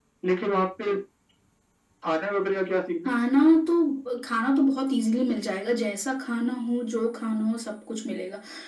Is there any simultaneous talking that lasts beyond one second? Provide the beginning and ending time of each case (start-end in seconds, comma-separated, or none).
none